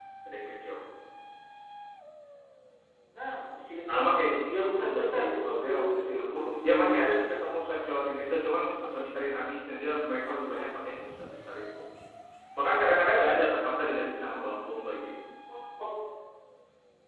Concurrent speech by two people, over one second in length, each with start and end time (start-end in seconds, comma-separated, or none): 4.5-6.8